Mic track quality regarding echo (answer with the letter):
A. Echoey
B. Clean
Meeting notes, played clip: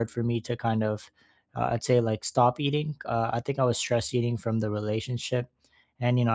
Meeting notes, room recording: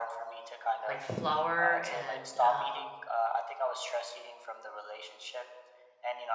A